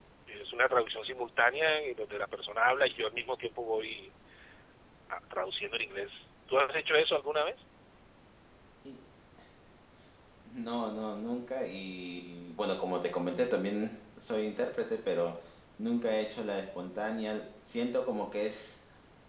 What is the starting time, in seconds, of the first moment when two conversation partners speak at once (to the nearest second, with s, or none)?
none